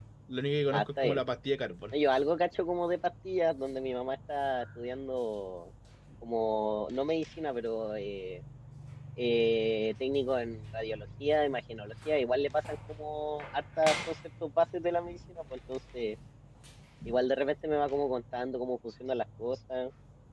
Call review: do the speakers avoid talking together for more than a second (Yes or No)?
Yes